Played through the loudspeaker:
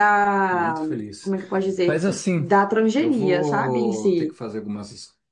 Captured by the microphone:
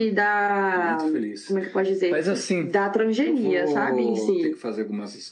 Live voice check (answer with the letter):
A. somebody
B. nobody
B